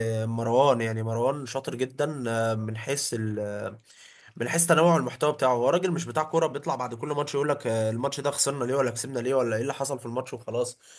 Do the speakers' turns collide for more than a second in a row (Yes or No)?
No